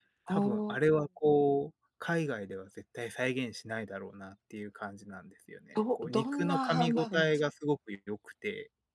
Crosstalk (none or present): present